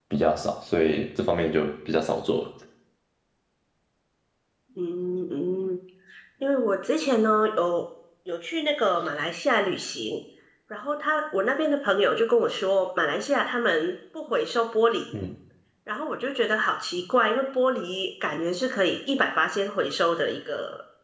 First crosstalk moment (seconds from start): none

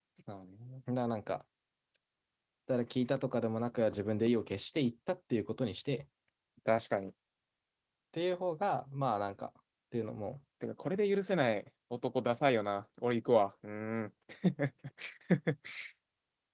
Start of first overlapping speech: none

